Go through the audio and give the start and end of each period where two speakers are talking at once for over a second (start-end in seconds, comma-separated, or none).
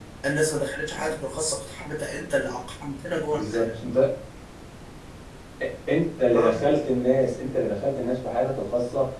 none